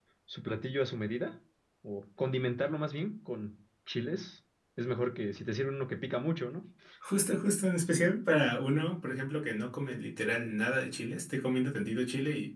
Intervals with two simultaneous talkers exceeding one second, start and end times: none

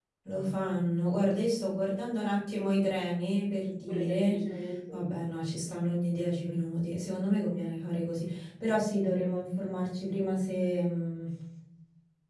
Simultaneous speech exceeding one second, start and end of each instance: none

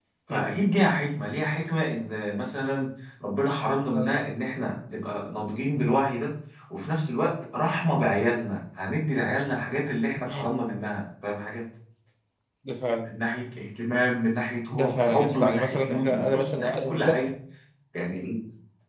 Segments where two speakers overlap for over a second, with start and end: 14.7-17.2

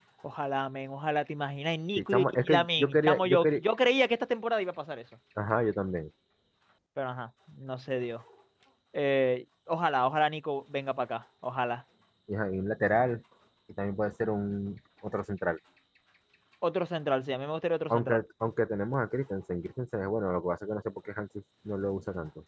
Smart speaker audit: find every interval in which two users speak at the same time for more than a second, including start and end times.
2.0-3.6

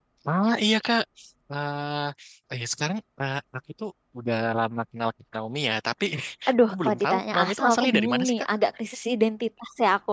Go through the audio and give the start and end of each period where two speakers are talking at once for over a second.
6.7-8.3

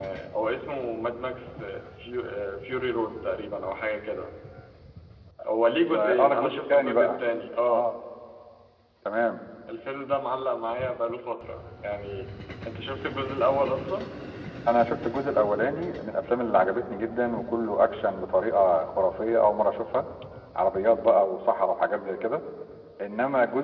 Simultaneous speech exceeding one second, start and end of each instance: 5.9-7.2

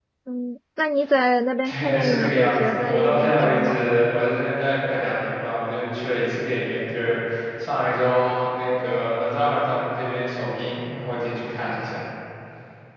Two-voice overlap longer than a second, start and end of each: 1.6-4.0

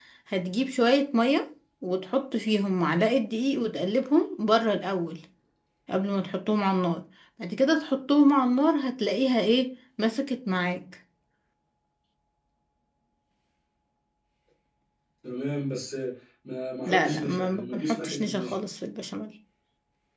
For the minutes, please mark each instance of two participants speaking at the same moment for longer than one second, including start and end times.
16.9-18.6

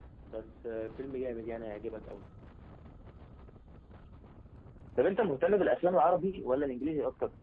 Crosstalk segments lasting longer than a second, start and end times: none

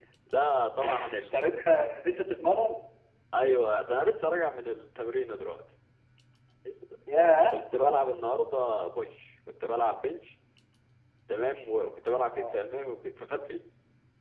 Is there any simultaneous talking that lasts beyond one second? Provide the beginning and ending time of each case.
none

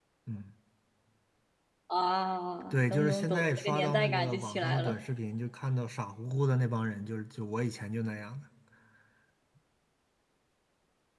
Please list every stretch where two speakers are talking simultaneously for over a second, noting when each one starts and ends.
2.7-5.0

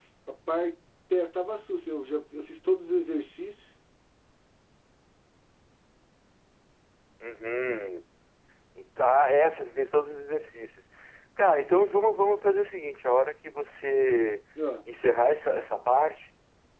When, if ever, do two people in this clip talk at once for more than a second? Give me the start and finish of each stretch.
none

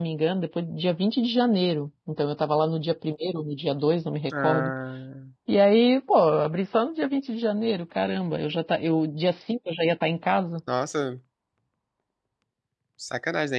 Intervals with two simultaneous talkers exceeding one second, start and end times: none

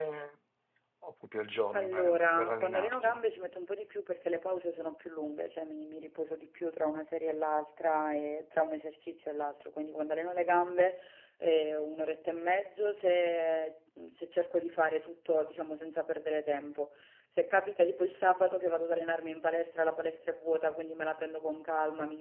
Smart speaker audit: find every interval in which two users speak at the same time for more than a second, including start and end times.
1.8-3.2

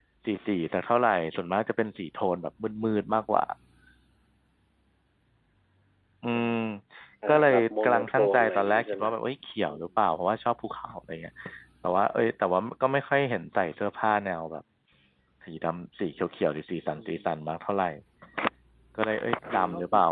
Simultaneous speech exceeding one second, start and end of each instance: 7.3-9.1

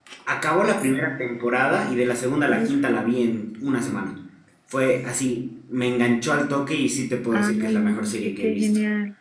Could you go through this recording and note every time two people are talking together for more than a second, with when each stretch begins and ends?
7.3-8.7

